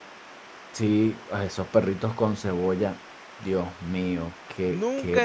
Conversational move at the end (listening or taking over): taking over